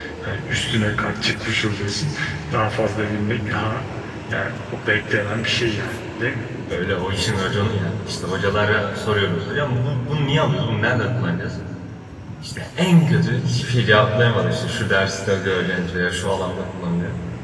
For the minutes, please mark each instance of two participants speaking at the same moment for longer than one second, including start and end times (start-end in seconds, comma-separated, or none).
none